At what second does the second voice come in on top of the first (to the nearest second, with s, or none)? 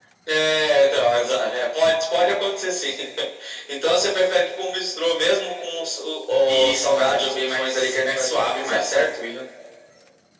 7 s